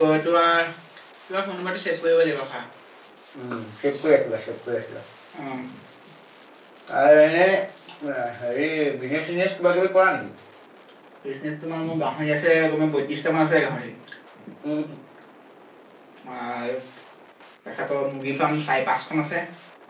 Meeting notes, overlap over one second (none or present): none